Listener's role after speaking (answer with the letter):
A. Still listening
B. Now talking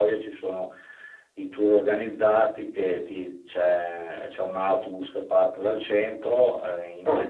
A